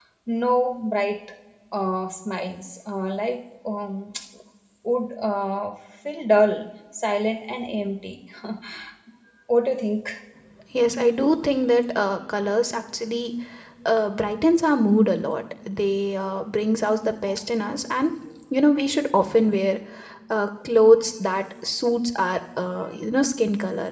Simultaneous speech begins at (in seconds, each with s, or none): none